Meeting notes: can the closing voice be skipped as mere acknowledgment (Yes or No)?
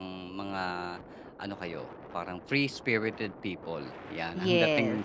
Yes